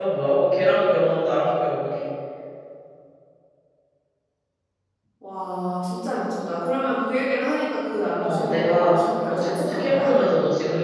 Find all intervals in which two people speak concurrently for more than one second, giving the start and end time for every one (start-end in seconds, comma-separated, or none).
8.2-10.1